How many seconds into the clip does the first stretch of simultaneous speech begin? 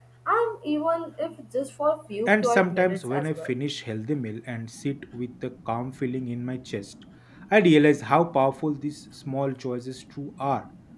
2.3 s

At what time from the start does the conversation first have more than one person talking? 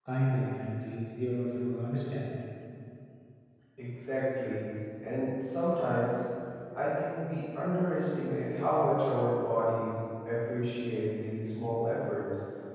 none

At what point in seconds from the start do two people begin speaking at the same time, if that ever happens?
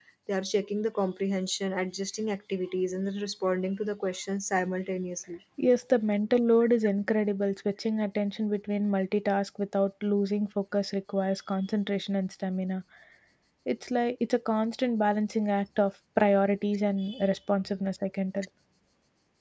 none

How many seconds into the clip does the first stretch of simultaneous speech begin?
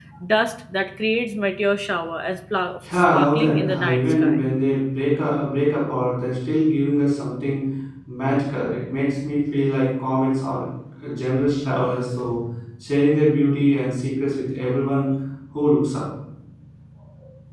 2.8 s

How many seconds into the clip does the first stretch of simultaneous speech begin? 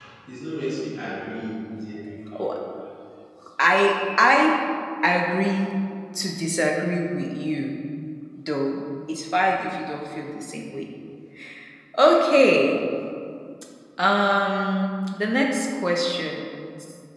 none

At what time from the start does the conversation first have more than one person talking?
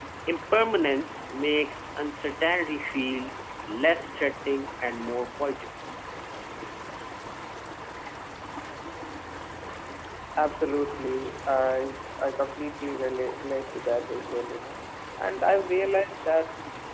none

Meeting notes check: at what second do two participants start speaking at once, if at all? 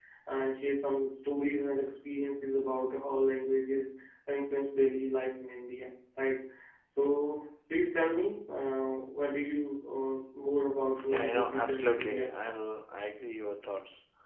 11.0 s

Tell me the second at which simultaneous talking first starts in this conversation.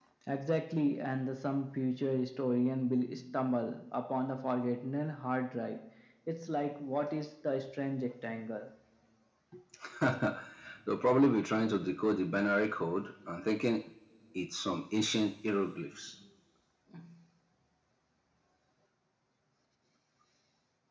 none

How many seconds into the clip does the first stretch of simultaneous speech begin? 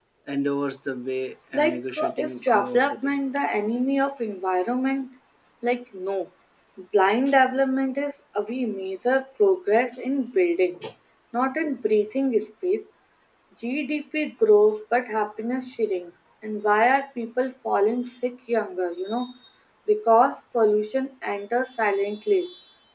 1.3 s

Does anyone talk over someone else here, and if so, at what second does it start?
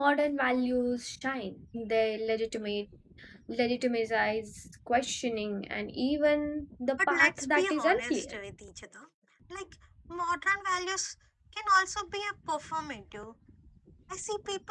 7.0 s

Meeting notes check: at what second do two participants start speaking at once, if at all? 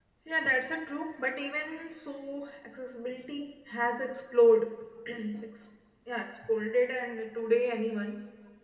none

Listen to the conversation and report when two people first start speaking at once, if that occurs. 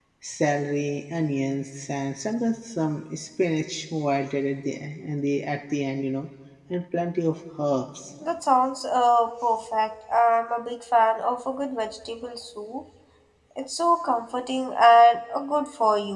none

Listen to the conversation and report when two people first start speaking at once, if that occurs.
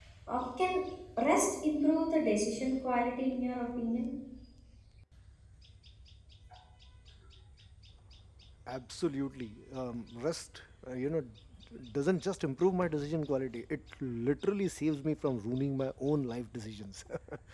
none

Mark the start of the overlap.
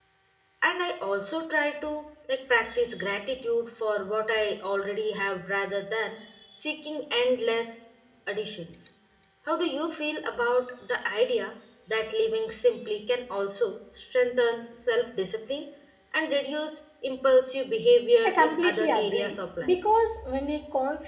18.2 s

